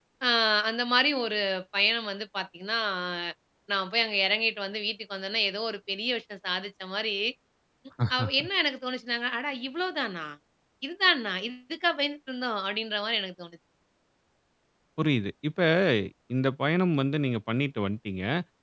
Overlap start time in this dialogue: none

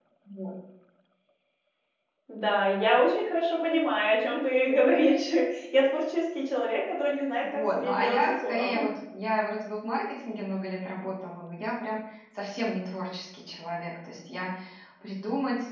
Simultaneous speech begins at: 7 s

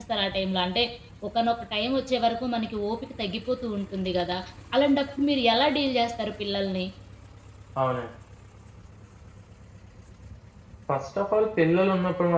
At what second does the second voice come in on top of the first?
none

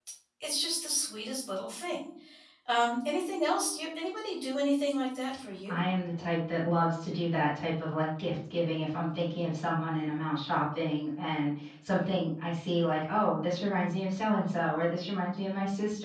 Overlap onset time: none

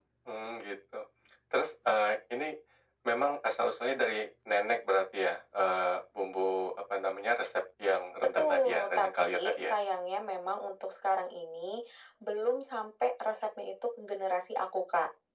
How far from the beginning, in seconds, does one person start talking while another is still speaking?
8 s

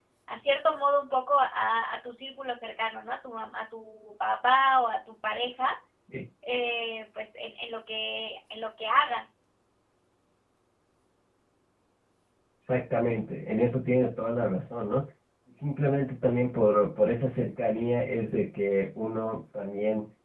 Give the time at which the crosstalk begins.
none

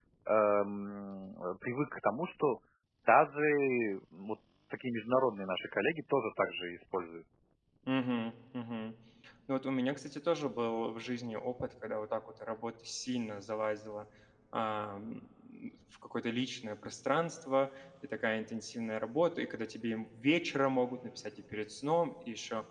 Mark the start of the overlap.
none

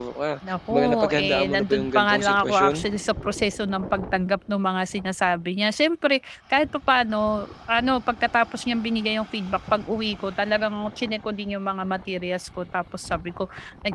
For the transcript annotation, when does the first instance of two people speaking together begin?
1 s

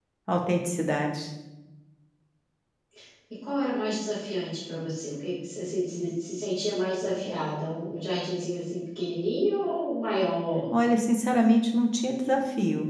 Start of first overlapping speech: none

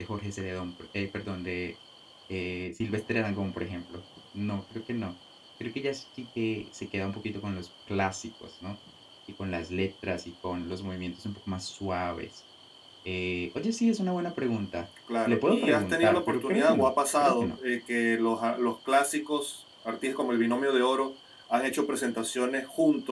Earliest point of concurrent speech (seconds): 15 s

